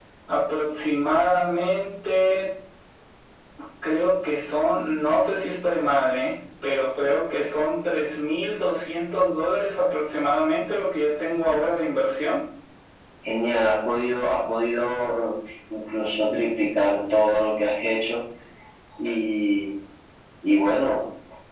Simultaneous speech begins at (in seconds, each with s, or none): none